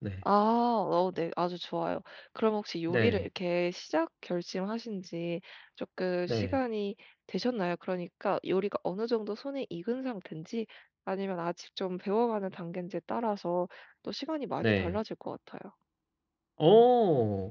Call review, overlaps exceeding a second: none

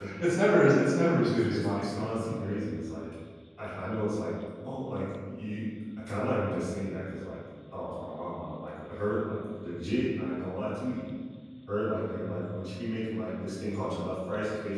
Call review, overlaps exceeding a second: present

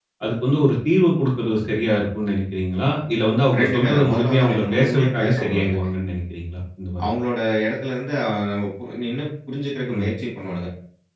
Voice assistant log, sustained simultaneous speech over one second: present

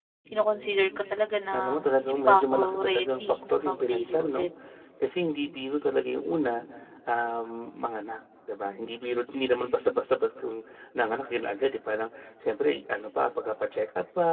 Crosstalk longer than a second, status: present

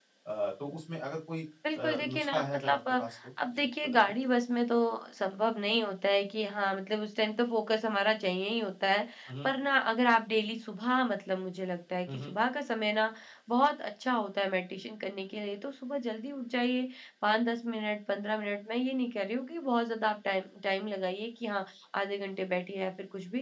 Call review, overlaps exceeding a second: present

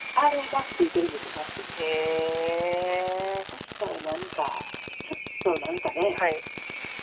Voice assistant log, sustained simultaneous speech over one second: none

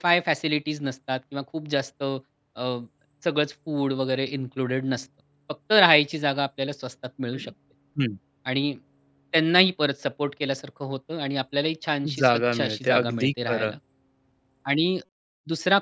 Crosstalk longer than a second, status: present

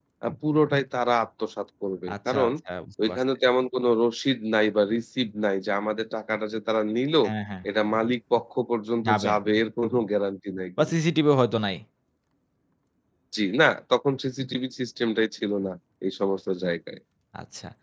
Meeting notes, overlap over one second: none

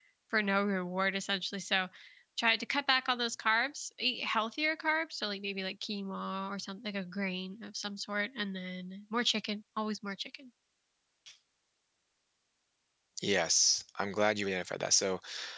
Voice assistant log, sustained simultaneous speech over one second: none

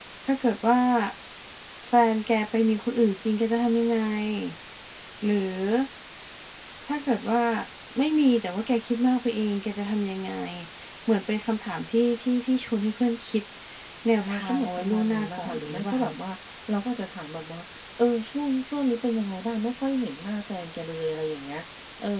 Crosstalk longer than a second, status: present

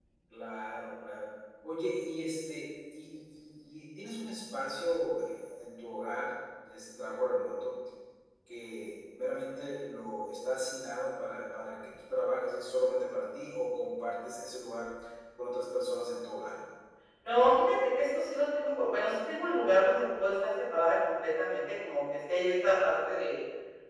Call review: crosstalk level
none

